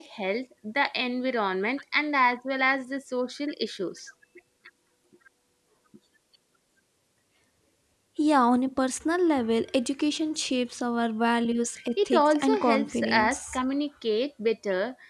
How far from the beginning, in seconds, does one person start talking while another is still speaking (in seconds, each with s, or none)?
12.0 s